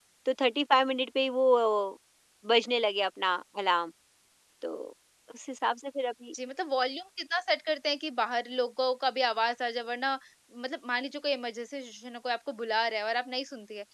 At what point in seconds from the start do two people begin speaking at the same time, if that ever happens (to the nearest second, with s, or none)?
none